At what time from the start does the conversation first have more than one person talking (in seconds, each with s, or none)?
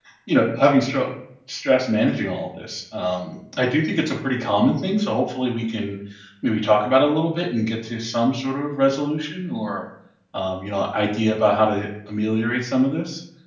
none